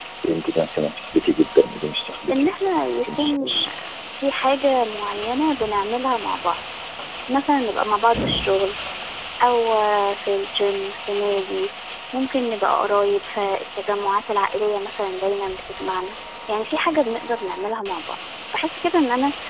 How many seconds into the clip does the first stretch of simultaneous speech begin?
2.3 s

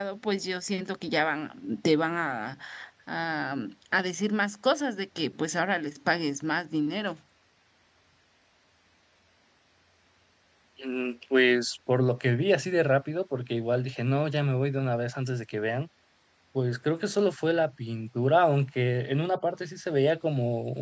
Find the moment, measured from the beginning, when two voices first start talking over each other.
none

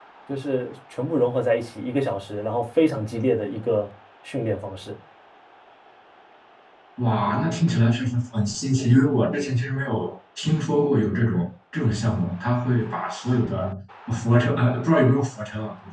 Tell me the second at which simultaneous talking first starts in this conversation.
none

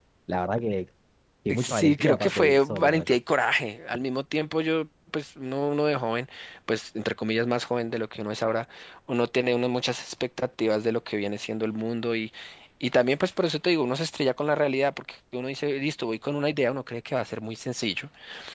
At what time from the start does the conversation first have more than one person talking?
1.6 s

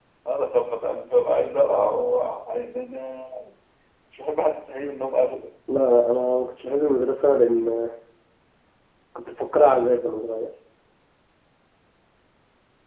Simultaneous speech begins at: none

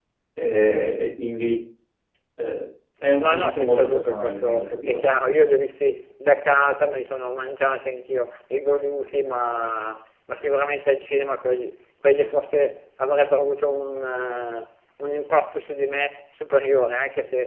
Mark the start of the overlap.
3.2 s

